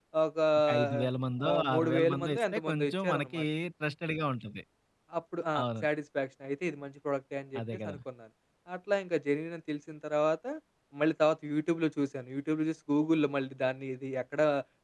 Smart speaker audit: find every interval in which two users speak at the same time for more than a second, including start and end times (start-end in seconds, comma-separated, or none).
1.5-3.4